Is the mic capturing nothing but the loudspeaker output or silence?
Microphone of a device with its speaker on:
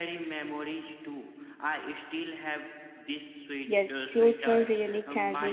No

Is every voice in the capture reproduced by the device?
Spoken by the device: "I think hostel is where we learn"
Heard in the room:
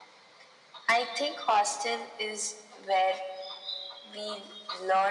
Yes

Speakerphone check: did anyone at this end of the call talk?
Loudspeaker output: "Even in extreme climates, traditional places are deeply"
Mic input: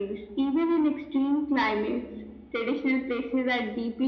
No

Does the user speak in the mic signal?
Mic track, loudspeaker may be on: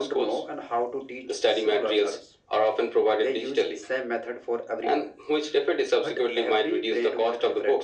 No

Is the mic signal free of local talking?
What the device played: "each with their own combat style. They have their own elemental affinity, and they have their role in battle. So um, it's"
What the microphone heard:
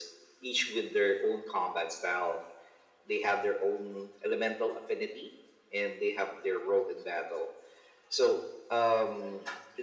Yes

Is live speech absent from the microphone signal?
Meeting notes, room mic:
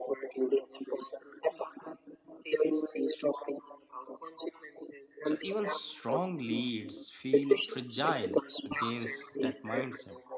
No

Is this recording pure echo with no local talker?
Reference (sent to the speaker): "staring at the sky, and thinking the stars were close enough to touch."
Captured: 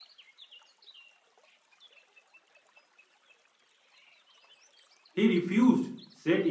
No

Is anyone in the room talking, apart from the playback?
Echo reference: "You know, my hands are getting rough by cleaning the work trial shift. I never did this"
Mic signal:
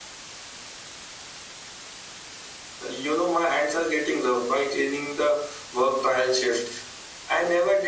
No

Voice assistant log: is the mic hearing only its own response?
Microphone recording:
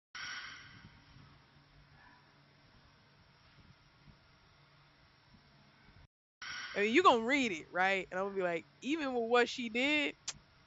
No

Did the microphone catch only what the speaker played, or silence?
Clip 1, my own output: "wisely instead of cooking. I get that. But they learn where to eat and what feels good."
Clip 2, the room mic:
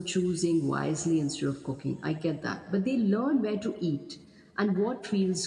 Yes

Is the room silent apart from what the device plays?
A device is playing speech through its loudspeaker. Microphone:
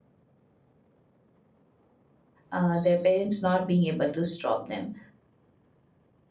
No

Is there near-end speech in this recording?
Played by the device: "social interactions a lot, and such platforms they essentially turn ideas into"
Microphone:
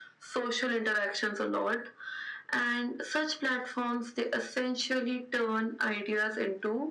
No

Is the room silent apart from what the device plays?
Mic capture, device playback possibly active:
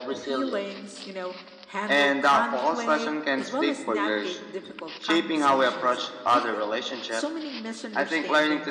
Yes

